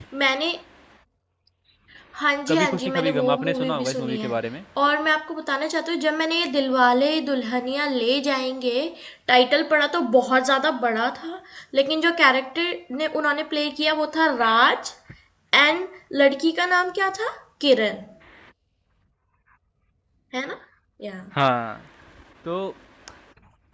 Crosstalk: present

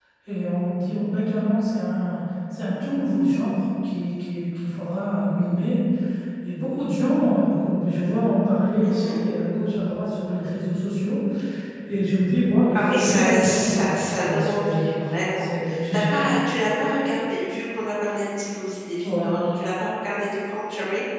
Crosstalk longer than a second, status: present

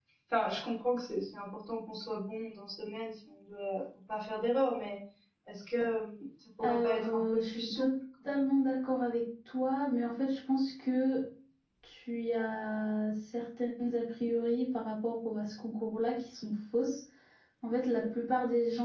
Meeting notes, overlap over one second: present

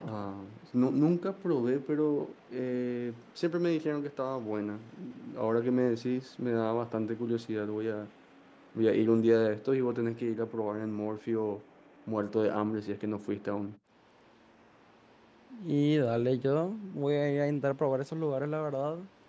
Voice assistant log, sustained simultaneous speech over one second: none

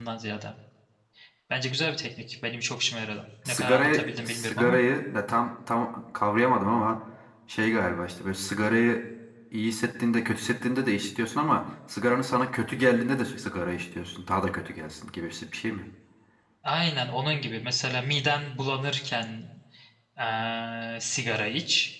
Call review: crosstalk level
present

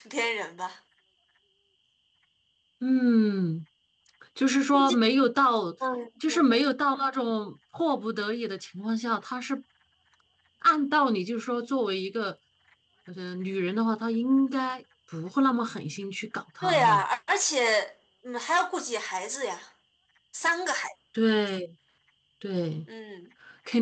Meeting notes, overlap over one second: none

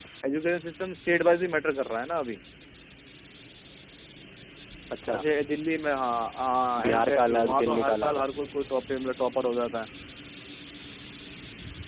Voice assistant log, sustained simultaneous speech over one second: present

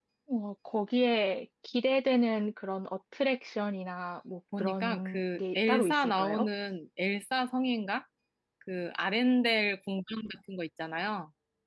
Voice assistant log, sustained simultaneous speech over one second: present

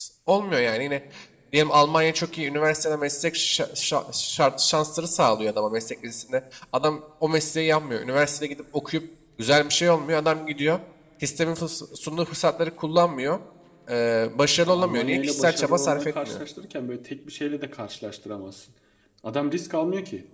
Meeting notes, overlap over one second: present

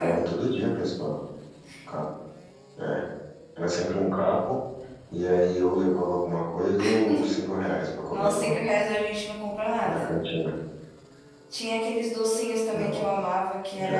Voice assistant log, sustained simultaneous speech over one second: none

